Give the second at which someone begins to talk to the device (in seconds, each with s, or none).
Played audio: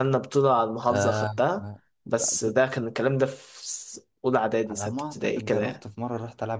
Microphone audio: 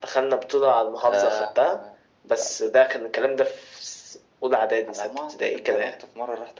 none